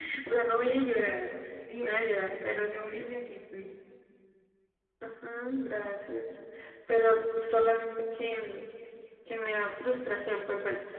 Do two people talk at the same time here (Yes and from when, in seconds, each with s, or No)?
Yes, from 1.8 s